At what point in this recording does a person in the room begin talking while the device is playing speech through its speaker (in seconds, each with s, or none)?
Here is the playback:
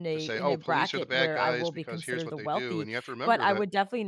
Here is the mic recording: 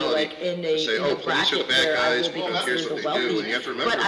2.3 s